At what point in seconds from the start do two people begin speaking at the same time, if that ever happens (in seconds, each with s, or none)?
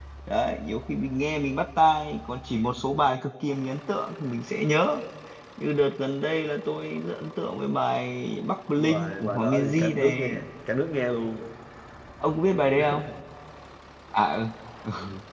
8.8 s